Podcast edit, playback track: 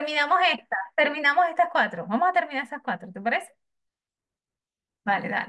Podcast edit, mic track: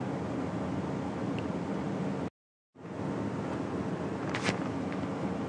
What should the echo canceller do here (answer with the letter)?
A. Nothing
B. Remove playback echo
A